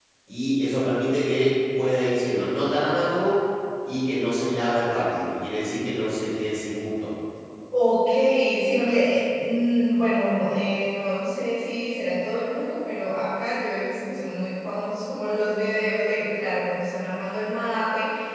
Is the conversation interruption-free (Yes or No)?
Yes